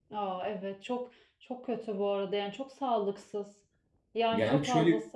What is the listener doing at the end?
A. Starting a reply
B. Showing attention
A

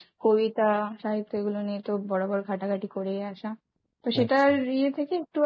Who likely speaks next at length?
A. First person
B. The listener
A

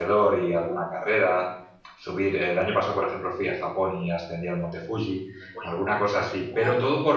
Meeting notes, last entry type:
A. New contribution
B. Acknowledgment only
B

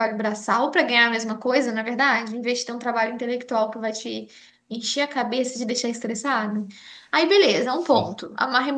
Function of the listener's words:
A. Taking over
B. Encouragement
B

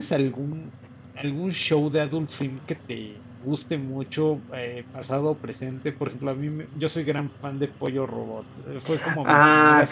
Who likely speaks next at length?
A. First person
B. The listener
B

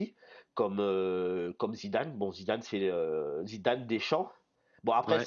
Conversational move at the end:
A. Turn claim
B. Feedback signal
B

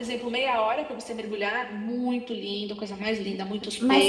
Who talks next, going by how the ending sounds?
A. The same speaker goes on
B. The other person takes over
B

